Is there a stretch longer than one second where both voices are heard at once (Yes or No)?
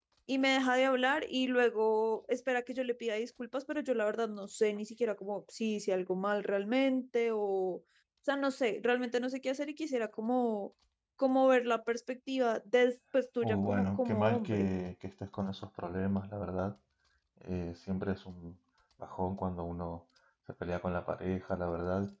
Yes